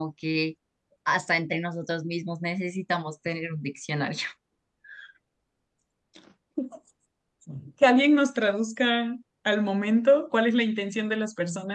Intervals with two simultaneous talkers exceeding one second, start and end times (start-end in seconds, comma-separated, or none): none